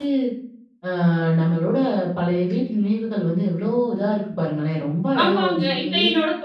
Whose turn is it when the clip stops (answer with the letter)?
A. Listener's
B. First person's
A